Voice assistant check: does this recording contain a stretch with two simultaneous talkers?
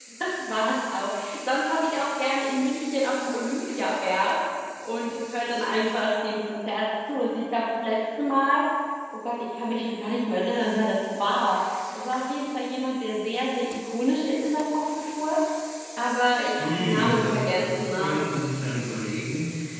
Yes, from 16.6 s

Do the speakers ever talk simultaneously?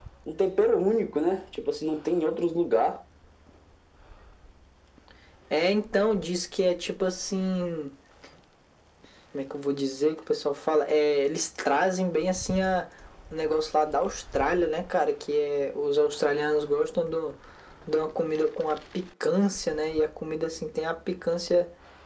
No

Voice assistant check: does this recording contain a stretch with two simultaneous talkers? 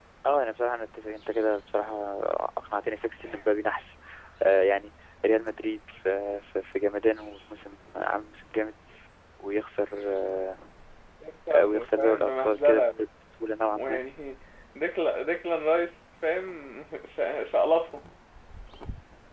Yes, from 11.6 s

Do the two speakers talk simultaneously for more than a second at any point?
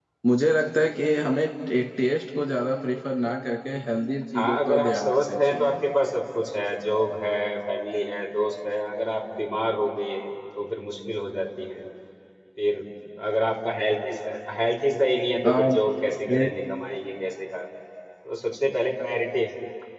Yes, from 4.3 s

